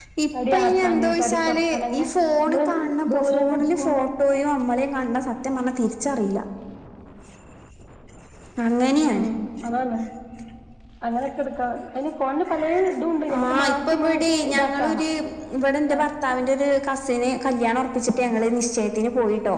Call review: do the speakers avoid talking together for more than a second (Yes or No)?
No